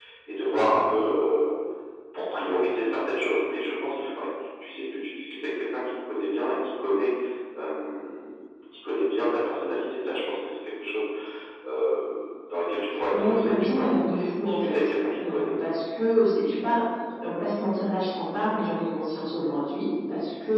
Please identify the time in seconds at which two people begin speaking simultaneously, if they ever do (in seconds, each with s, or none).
13.1 s